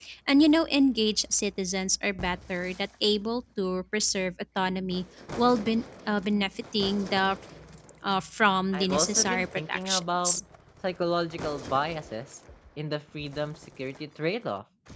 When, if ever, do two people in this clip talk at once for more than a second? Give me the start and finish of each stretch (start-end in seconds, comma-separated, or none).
8.7-10.4